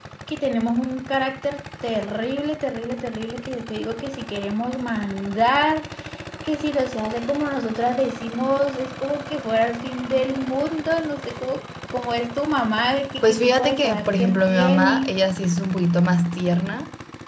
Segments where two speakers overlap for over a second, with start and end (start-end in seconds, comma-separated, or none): 13.2-15.1